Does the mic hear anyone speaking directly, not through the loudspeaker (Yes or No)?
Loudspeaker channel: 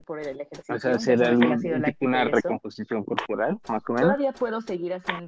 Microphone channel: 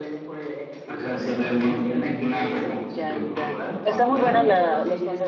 Yes